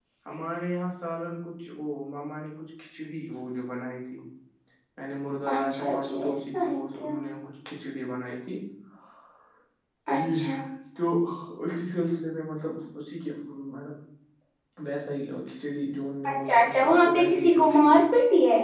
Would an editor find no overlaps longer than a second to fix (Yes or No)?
No